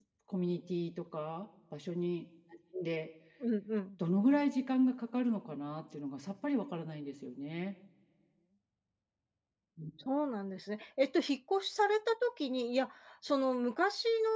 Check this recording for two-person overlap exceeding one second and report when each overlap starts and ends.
none

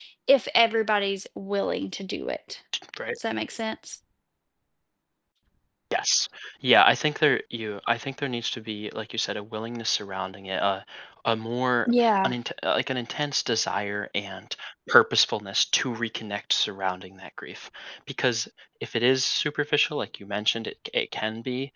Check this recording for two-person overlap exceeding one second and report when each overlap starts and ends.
none

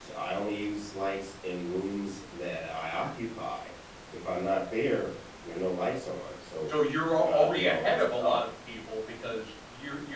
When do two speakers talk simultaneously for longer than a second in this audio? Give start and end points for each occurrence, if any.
7.2-8.4

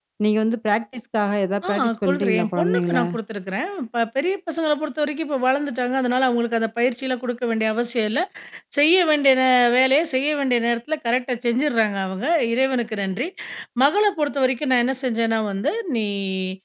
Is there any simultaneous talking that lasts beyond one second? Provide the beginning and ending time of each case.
1.7-3.0

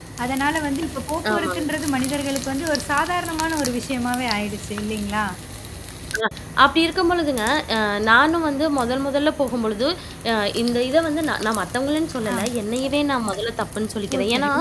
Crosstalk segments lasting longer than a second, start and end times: none

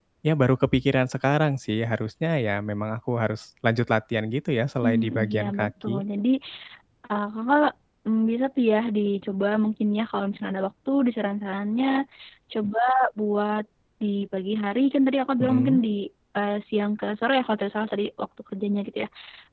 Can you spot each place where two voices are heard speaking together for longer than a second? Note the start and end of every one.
4.8-6.0

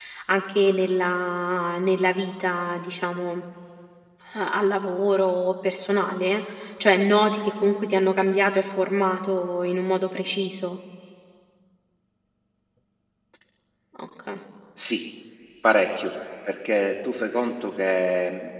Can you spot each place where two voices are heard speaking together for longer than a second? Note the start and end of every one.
none

